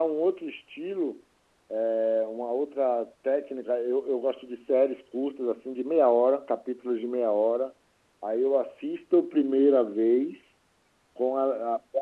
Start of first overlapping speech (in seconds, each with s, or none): none